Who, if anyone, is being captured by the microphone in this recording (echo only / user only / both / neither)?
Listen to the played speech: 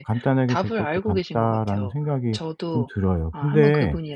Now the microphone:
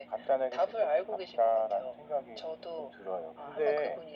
echo only